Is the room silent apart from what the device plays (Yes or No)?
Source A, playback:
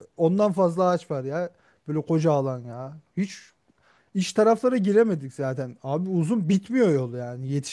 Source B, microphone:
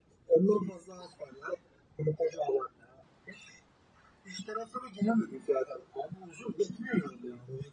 Yes